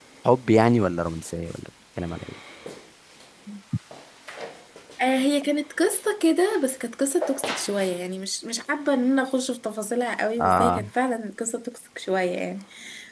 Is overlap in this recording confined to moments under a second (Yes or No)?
Yes